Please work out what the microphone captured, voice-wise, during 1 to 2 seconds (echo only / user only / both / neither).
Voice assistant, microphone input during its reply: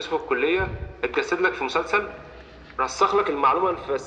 echo only